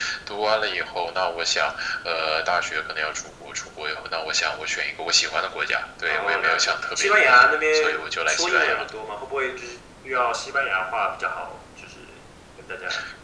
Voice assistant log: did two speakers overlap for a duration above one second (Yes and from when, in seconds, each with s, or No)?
Yes, from 6.1 s